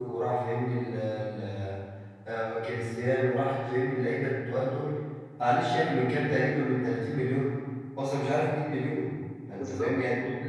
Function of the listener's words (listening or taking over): listening